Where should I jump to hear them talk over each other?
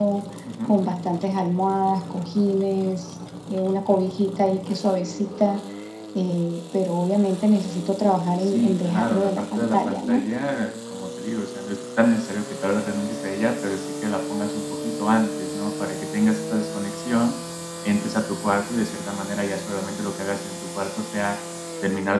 8.4 s

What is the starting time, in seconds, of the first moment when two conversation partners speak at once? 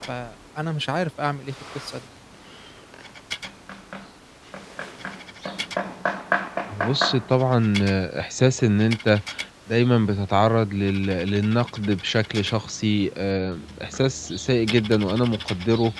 none

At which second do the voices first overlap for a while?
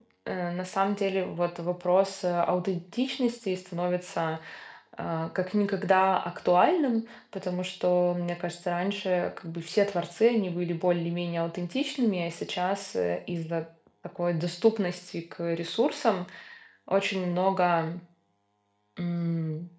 none

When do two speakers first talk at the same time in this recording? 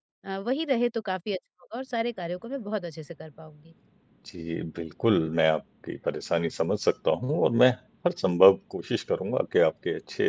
none

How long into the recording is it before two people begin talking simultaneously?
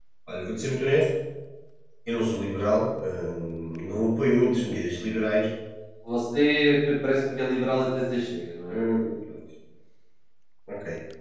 none

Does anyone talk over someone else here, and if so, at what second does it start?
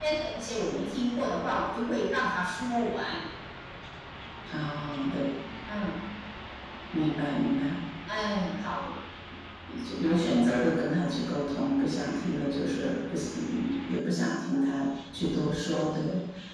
none

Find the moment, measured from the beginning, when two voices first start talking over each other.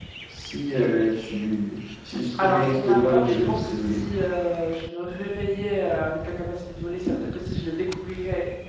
2.4 s

